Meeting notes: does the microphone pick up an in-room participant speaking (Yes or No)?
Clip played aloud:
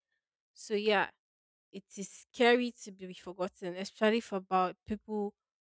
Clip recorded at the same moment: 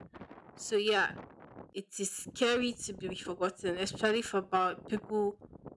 No